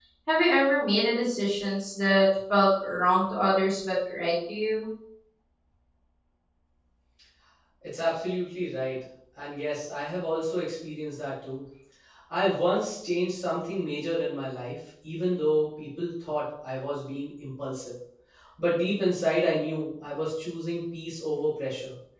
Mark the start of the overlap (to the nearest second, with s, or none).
none